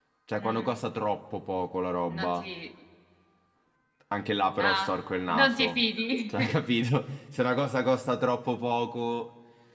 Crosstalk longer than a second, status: none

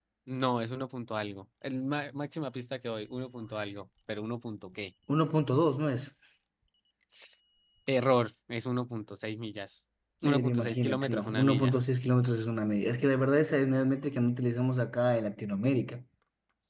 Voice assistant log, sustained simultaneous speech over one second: present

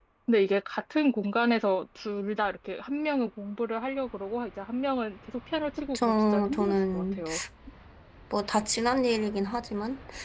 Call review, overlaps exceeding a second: present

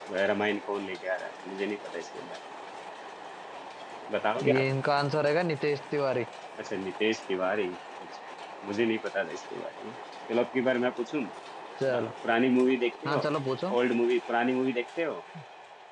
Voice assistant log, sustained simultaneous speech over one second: none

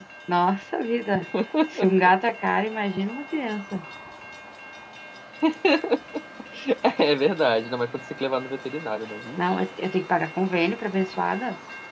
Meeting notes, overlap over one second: none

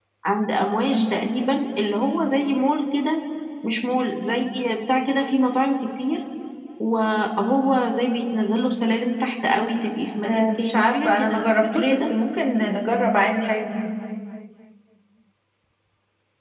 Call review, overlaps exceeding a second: present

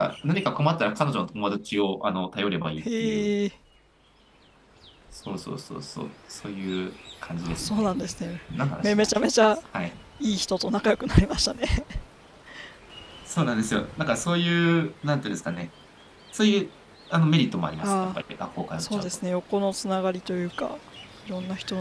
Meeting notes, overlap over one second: none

